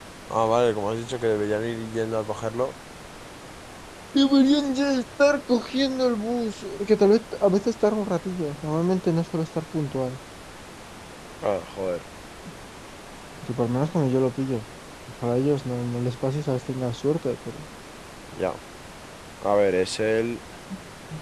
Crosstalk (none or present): none